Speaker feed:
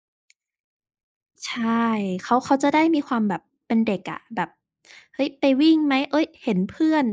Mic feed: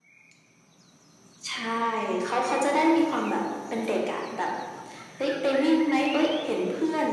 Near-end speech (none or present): none